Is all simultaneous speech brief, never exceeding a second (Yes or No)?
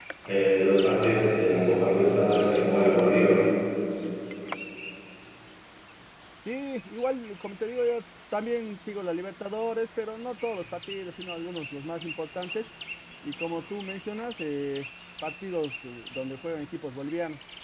Yes